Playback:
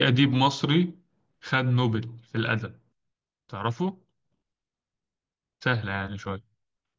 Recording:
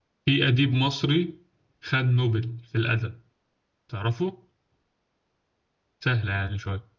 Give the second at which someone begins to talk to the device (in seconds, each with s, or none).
none